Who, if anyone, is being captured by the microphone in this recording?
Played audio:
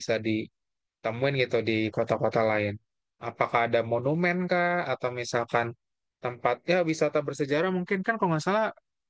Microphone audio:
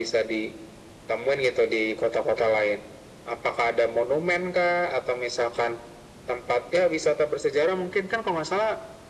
echo only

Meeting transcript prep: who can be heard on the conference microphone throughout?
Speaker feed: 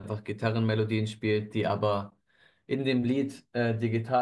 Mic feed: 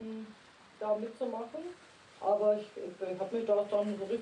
user only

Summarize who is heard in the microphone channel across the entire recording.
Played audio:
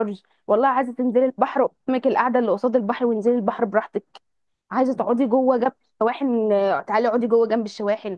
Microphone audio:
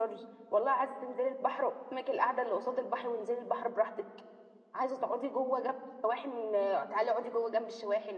echo only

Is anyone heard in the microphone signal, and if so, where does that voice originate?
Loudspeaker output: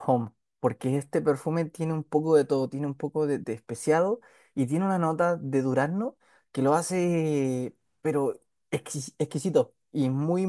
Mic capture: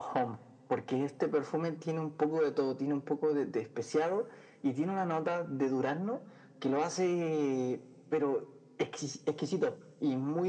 echo only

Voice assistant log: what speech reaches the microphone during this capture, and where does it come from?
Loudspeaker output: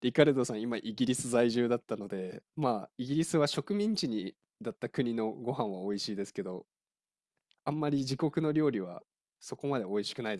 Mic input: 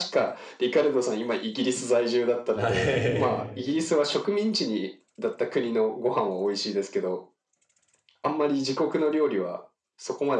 both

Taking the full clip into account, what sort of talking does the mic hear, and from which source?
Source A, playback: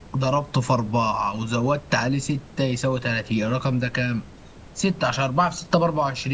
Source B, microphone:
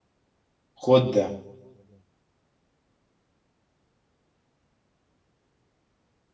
user only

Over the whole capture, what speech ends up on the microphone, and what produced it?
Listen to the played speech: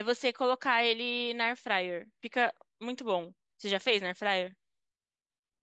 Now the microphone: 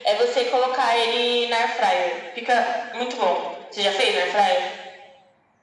echo only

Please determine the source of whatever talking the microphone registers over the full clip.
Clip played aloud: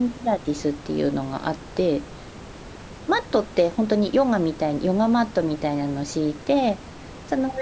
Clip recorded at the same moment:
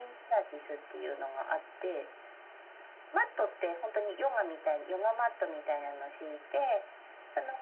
echo only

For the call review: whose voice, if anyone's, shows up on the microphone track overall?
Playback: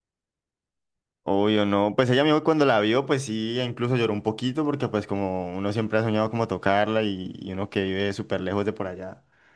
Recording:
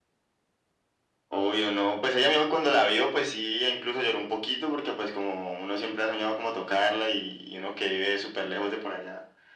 echo only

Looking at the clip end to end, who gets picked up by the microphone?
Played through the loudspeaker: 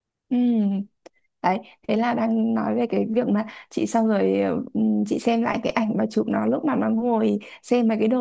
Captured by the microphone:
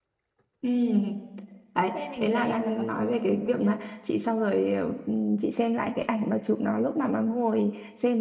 both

